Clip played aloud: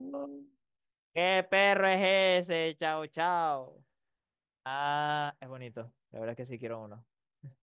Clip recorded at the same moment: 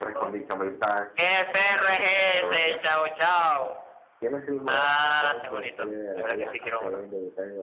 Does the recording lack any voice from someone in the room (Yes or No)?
No